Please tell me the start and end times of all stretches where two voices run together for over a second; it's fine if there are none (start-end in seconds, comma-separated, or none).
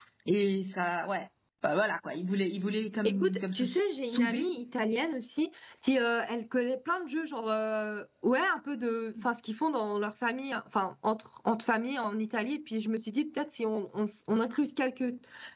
3.0-4.5